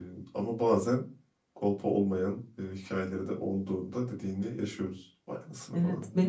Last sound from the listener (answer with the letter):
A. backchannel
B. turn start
B